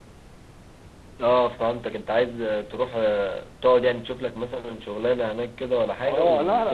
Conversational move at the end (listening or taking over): taking over